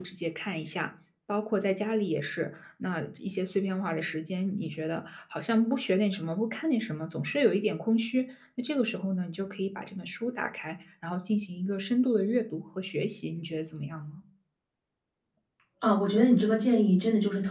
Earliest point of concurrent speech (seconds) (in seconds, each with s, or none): none